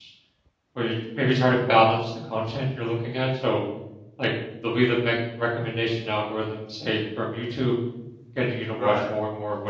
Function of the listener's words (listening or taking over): listening